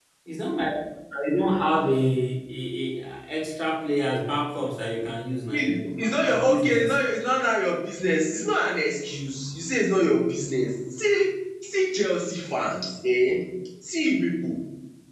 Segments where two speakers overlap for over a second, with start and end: 5.5-7.0

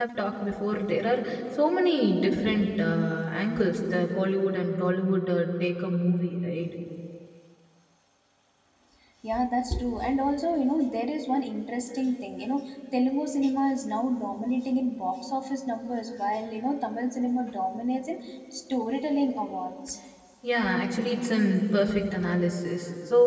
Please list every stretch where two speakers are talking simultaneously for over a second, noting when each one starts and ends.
none

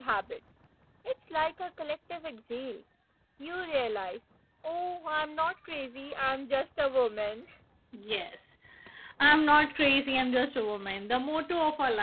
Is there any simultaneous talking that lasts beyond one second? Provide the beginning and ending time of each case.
none

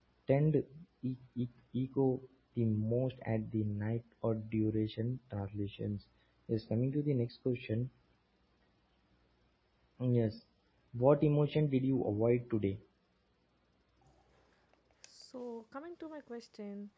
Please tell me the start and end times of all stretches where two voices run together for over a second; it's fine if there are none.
none

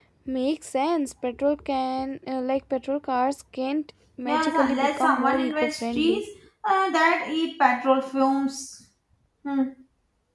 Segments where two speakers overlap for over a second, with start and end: 4.2-6.2

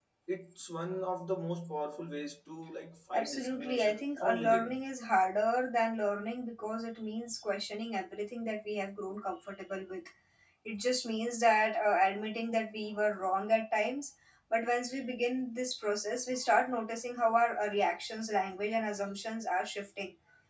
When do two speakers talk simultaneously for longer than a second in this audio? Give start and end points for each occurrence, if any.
3.1-4.8

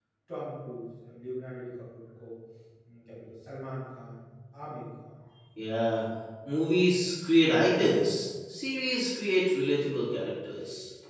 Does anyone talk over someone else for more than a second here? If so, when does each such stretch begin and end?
none

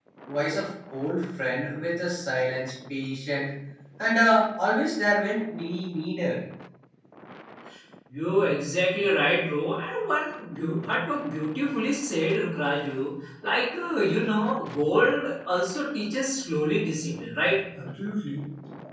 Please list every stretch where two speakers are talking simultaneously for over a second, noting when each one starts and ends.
none

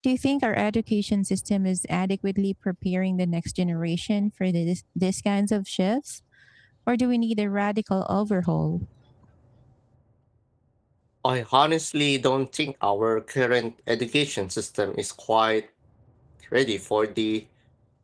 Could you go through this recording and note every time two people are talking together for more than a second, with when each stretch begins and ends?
none

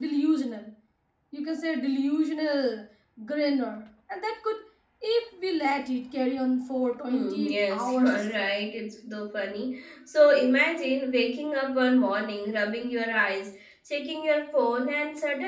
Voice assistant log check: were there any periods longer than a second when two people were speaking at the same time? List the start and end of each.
7.1-8.5

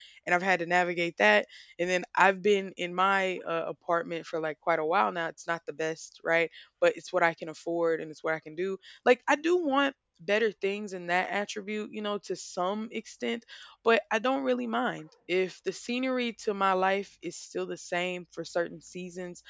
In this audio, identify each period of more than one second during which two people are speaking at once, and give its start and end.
none

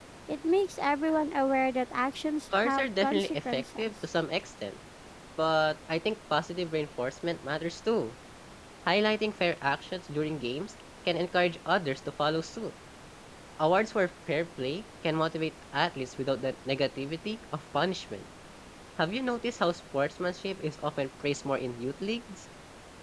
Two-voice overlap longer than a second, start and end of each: 2.5-3.9

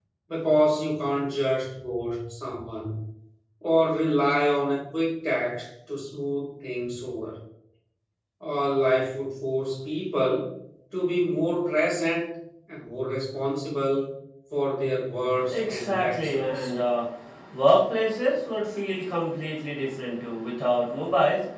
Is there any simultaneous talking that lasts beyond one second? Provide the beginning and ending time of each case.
15.5-16.7

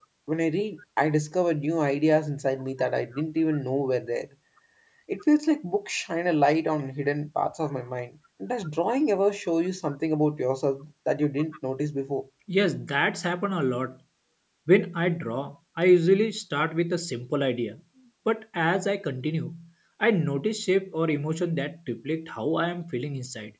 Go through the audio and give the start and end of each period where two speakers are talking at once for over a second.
none

